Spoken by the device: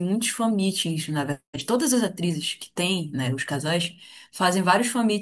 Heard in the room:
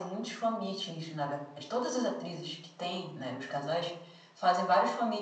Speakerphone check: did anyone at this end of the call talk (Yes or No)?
No